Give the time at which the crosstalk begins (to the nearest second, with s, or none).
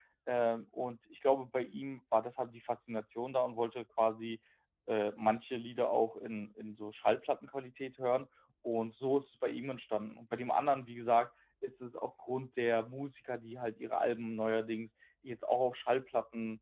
none